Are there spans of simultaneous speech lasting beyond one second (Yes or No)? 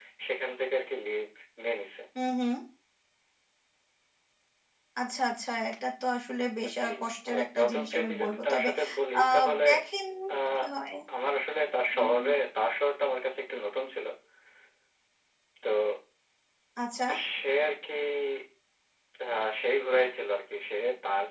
Yes